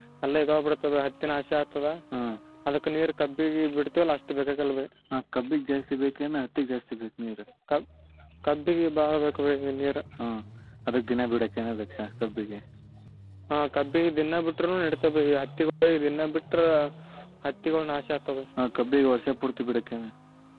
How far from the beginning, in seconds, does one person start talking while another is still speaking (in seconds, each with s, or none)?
none